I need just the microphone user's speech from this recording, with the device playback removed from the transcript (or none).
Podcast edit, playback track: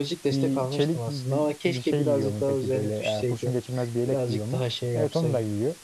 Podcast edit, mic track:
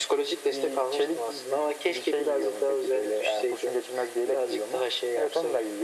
none